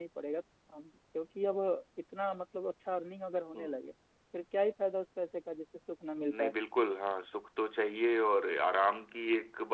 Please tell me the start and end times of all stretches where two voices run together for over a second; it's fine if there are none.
none

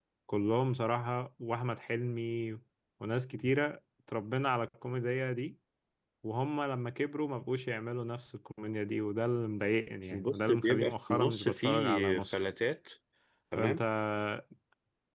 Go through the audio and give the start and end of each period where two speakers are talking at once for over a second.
10.1-12.4

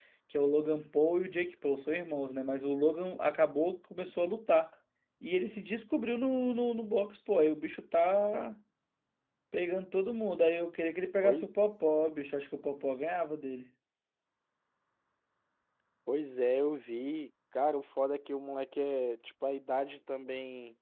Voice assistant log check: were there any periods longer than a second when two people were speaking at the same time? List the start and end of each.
none

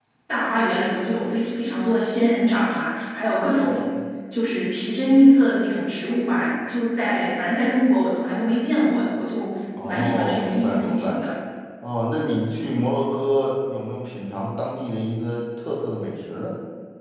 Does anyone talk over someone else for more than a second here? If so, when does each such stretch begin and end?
9.8-11.2

